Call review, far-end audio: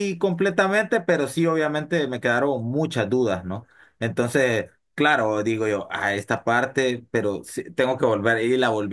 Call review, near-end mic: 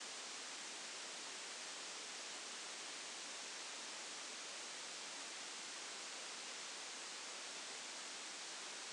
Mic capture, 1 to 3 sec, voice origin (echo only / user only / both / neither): neither